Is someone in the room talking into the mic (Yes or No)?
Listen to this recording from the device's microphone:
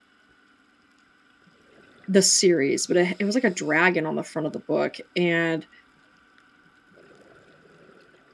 Yes